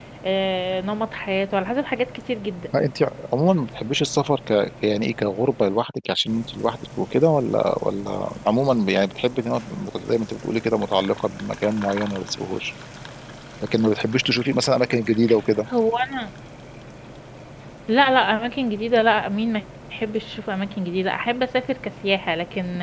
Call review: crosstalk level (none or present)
none